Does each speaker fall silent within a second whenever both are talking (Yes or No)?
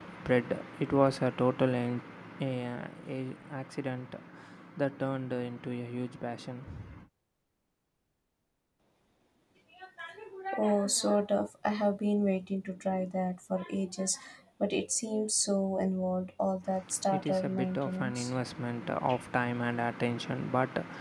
No